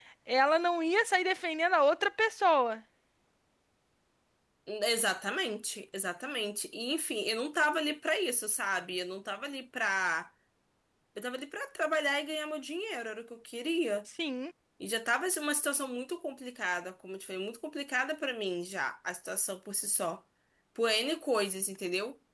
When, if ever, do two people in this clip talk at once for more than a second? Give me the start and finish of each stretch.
none

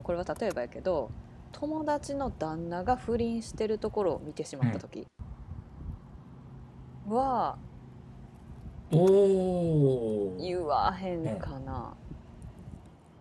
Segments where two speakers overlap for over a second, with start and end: none

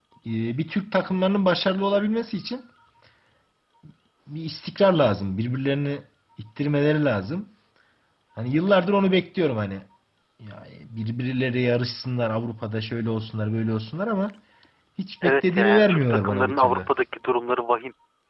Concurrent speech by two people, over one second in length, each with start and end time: 15.2-16.8

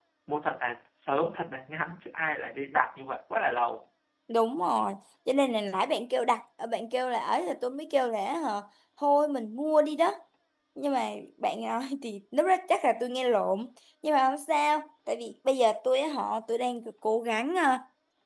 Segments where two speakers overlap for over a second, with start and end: none

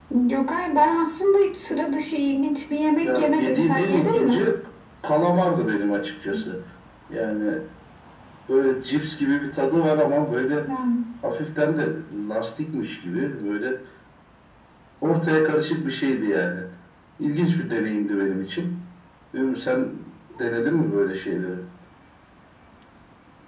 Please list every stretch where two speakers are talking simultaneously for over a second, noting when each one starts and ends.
3.0-4.5

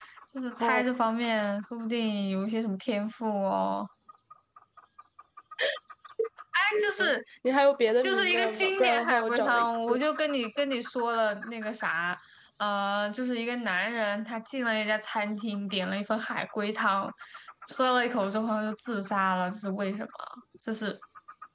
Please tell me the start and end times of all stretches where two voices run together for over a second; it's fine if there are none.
8.0-9.7

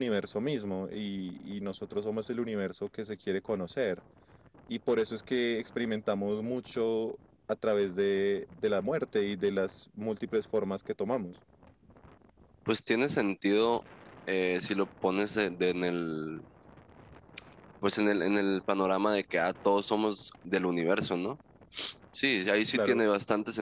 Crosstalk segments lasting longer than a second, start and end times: none

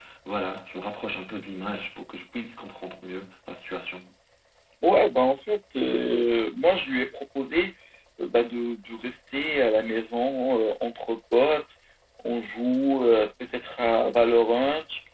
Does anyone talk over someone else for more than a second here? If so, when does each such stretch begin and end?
none

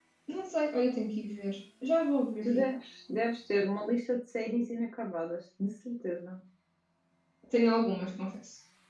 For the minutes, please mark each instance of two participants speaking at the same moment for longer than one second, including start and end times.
none

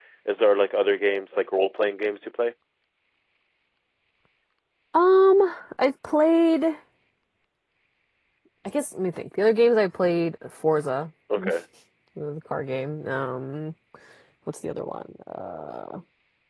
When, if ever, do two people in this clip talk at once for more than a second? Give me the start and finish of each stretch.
none

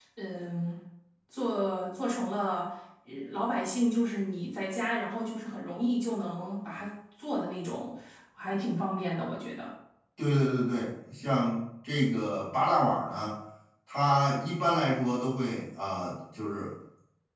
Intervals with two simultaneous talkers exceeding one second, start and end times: none

